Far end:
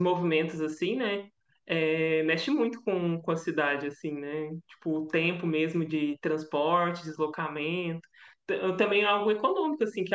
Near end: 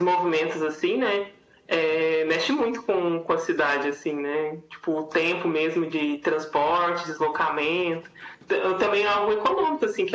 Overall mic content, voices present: echo only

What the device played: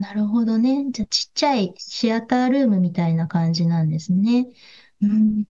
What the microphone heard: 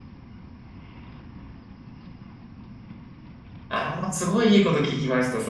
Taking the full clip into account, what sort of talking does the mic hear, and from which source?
user only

